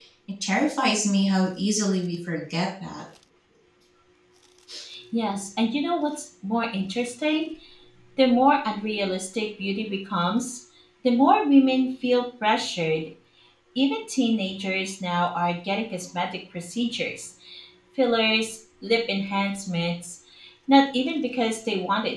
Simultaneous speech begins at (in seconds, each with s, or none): none